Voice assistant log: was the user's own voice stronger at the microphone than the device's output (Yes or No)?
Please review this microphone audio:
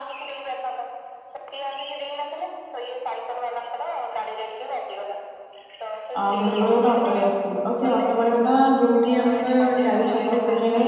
Yes